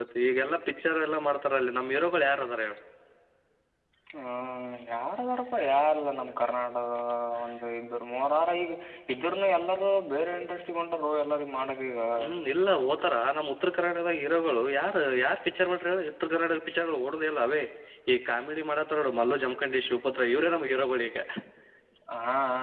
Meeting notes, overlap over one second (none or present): none